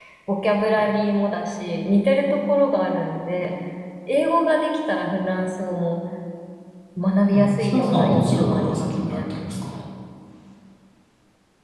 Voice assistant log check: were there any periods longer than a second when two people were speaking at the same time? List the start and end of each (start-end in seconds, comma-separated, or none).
7.3-9.2